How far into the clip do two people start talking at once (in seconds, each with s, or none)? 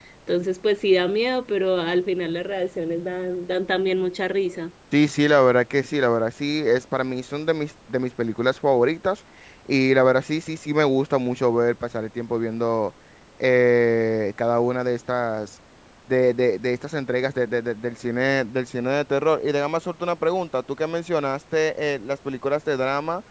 none